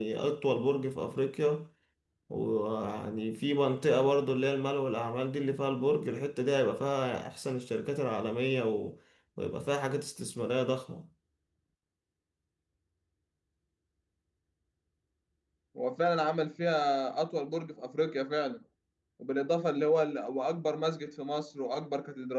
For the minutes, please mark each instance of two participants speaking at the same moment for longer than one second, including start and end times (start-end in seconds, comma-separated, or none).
none